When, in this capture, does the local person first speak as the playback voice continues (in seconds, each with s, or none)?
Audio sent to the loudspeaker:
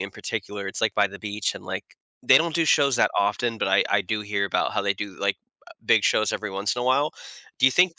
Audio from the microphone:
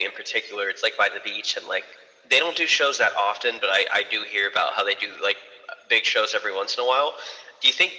none